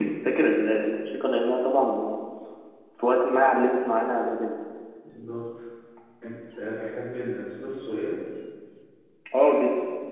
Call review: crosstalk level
none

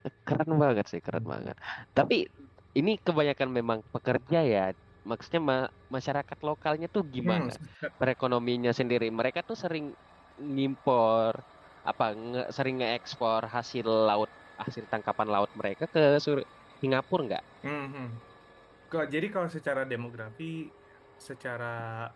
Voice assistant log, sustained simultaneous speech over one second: none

